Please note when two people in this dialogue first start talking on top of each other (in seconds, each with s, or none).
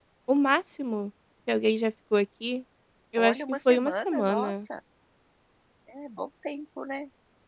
3.2 s